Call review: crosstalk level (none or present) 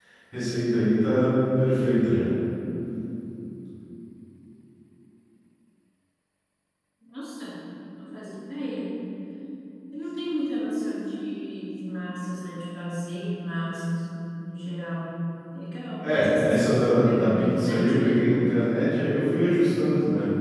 present